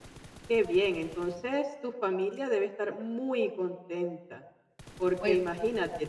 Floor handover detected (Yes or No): No